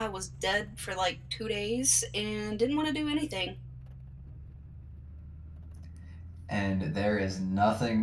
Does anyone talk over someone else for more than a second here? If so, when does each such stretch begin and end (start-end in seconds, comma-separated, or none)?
none